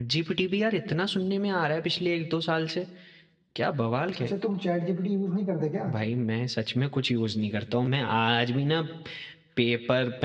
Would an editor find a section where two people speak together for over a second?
No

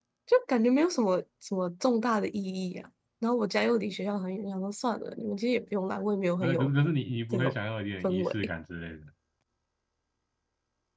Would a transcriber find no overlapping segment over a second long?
Yes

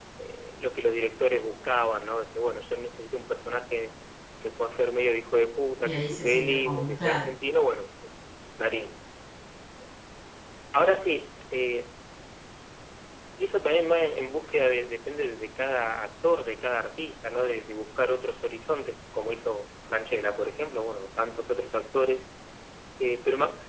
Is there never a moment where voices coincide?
No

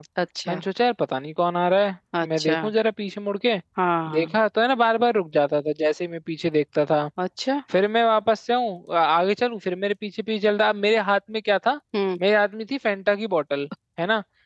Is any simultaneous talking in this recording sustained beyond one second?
No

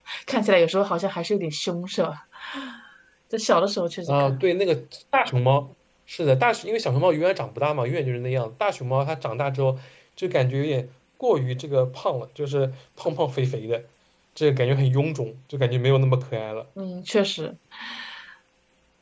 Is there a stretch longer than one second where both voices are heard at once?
No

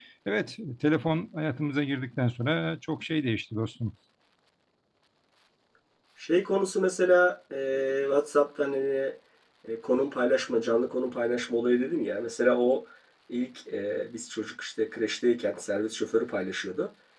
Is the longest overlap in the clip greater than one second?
No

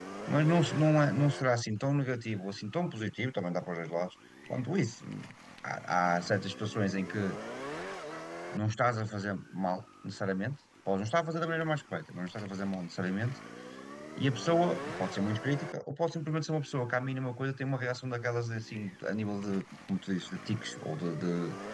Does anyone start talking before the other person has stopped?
No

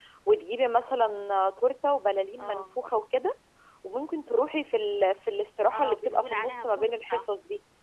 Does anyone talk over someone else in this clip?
Yes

